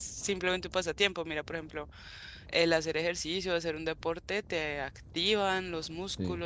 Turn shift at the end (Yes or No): No